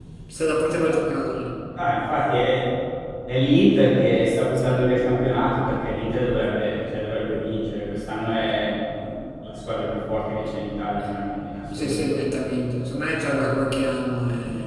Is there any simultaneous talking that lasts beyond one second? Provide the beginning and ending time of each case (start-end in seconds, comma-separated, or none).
none